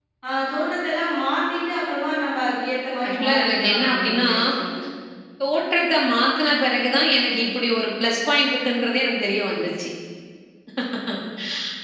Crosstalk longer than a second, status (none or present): present